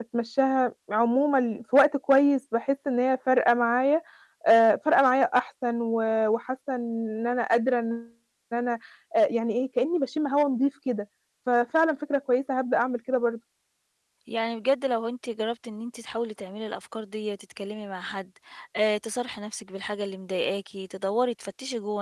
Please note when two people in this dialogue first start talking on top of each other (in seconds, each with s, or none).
none